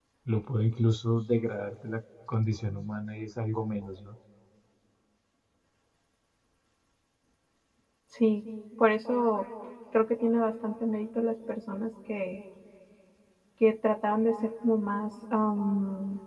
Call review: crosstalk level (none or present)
none